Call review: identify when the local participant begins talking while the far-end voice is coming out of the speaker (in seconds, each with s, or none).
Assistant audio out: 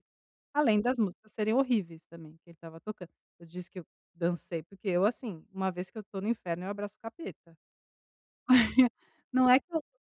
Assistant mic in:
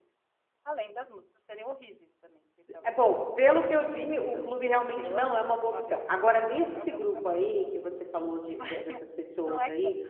2.7 s